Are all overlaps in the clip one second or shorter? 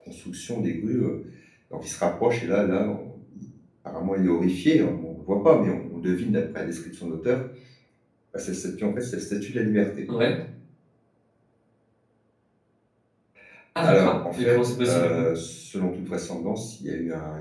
No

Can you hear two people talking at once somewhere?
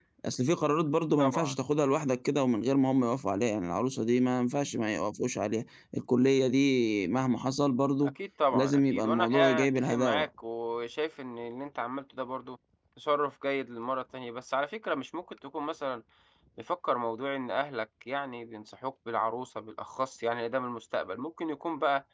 Yes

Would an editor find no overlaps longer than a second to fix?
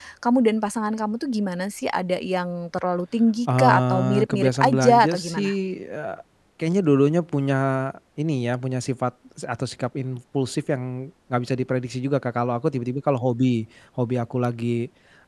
No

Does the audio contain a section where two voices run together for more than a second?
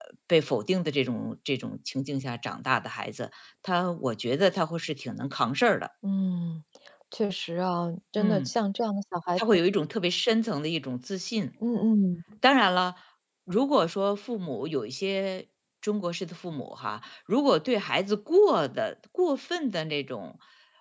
No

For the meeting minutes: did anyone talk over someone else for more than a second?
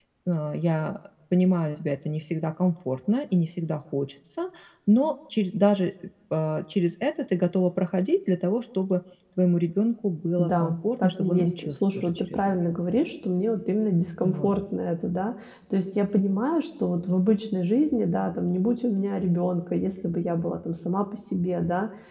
Yes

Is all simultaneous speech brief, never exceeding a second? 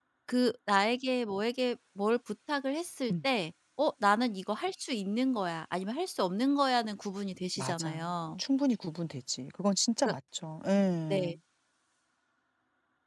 Yes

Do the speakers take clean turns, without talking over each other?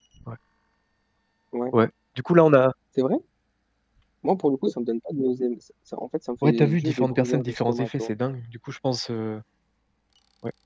No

